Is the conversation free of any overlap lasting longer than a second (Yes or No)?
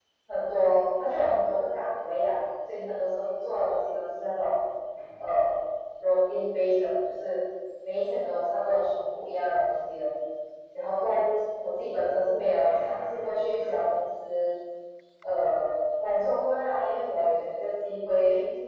No